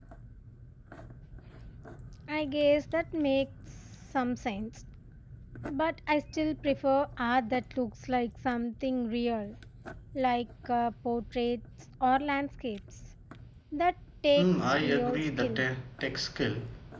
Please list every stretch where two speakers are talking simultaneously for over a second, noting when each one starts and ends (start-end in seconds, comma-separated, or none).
14.4-15.6